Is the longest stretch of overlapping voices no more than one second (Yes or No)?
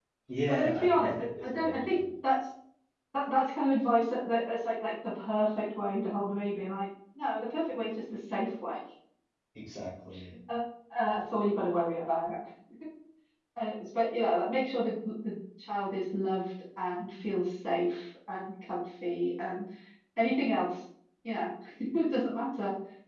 No